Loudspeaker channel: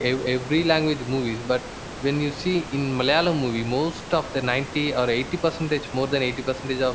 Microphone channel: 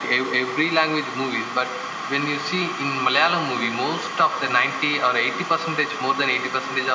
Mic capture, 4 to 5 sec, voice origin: echo only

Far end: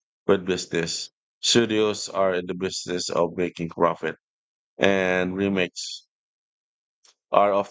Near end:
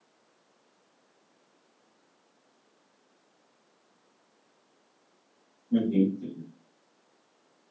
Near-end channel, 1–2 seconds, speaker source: neither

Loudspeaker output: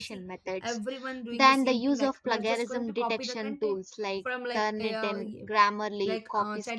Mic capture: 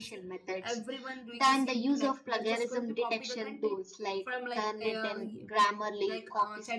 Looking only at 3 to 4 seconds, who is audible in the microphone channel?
echo only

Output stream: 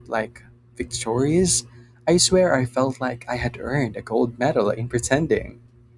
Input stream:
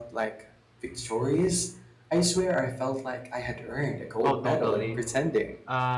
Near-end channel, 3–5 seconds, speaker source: both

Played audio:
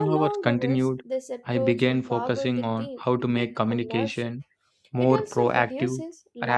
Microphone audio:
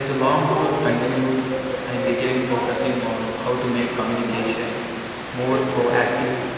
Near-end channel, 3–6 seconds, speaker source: echo only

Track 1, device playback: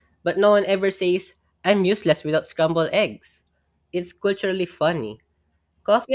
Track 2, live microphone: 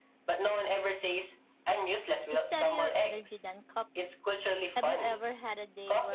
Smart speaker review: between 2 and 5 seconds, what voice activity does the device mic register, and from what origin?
both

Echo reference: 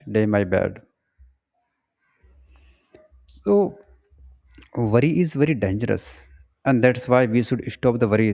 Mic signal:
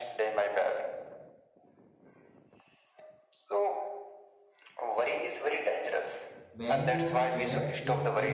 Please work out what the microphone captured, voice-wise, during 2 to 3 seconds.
neither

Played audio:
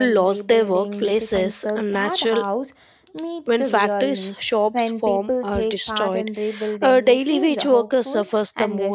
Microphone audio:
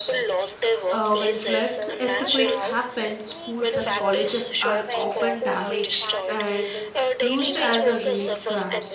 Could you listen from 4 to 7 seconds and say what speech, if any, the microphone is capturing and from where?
both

